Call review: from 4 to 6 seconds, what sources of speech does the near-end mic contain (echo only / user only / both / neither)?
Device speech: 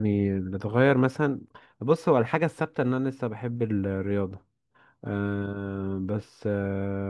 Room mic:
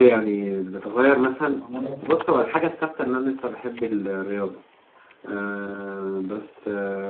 echo only